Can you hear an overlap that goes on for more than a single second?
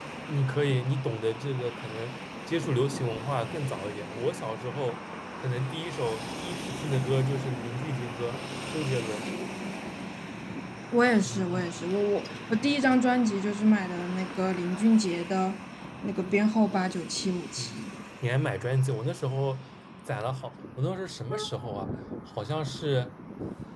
No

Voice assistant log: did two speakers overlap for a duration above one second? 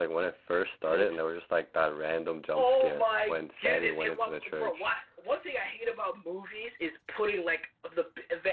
Yes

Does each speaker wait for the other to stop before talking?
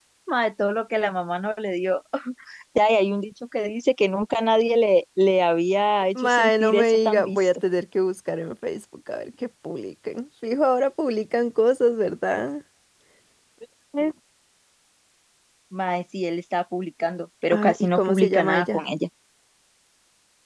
No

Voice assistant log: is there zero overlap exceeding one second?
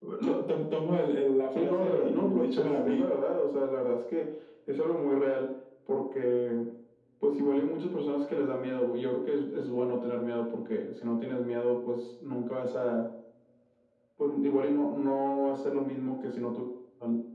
No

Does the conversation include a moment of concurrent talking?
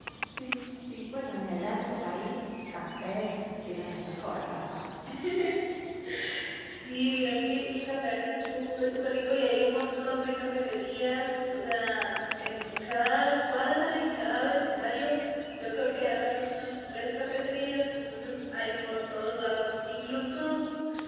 No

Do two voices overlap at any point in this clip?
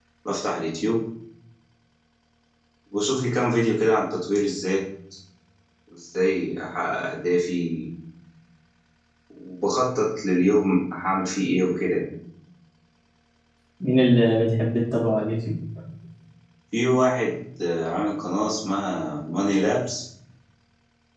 No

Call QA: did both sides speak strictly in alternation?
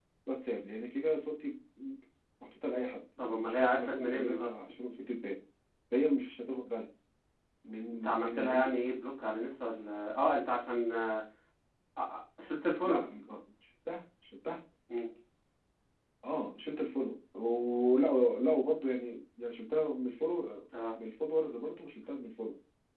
No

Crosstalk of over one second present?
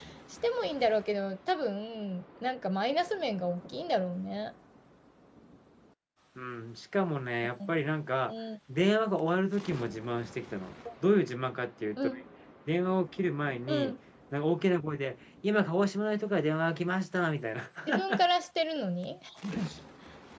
No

